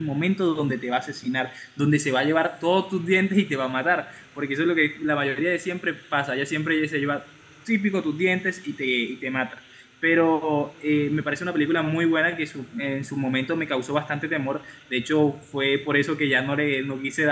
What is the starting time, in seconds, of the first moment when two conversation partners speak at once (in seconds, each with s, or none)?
none